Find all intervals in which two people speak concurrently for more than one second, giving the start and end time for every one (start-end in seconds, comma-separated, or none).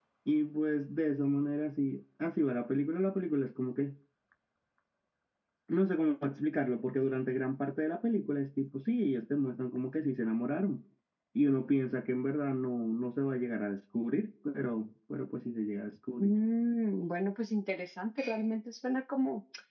none